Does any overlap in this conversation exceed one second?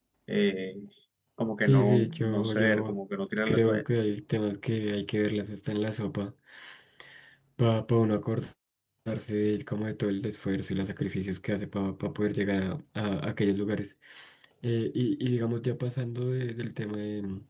Yes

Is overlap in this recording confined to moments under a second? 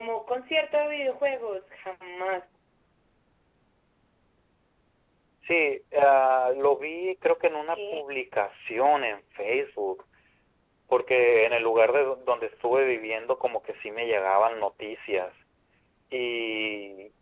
Yes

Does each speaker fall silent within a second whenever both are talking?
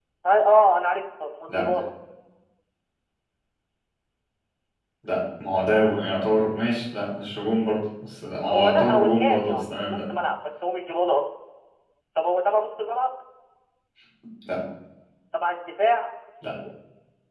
No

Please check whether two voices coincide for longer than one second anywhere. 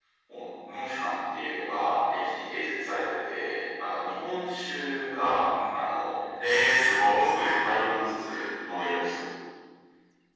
No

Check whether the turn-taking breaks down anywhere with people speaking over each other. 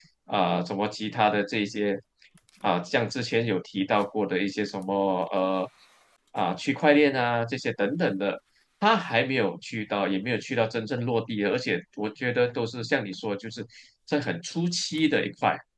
No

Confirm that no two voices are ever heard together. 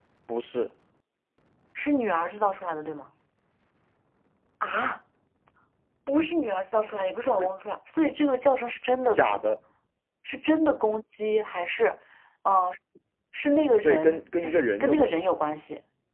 No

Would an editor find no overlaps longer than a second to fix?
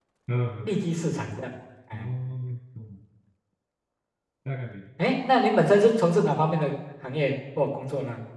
Yes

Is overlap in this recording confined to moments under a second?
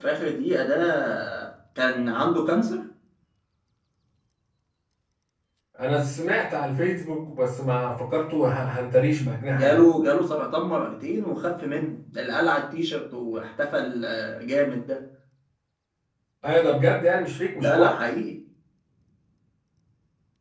Yes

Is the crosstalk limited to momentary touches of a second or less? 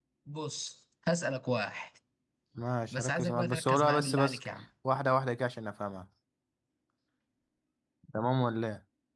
No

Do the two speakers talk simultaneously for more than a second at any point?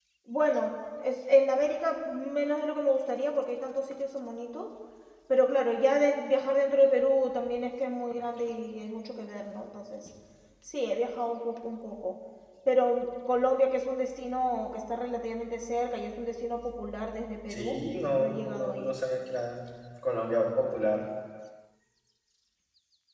Yes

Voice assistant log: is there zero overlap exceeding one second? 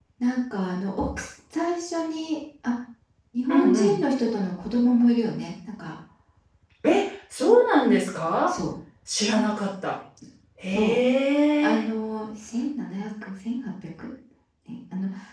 Yes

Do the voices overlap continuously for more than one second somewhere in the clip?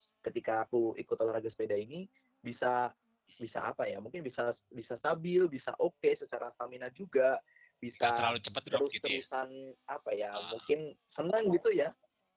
No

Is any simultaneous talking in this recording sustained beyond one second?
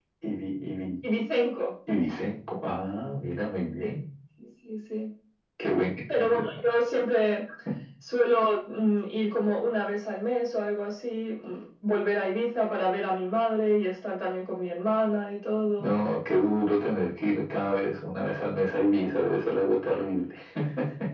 No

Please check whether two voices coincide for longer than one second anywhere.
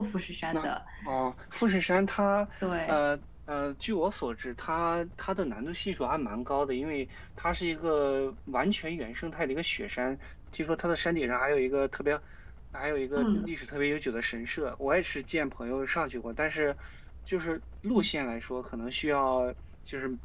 No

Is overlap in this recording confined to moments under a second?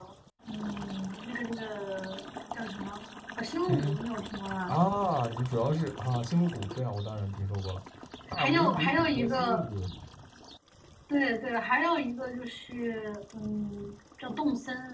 No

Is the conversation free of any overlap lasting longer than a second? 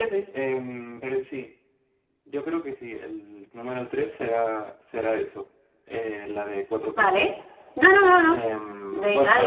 Yes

